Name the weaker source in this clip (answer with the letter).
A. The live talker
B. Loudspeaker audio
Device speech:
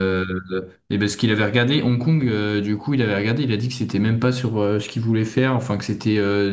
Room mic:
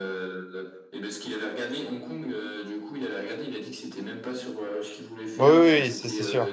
B